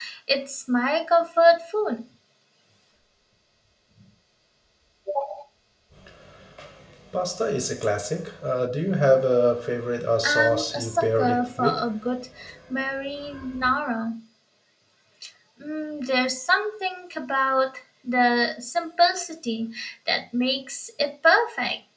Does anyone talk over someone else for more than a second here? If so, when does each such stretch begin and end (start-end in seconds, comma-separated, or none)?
10.2-11.8